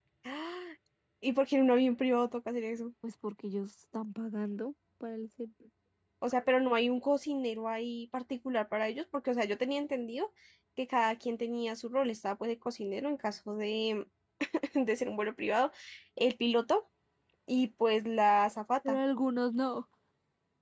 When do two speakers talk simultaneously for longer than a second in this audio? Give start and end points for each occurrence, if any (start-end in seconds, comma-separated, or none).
none